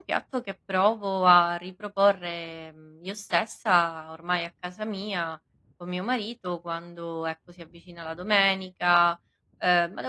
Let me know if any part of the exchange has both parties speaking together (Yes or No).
No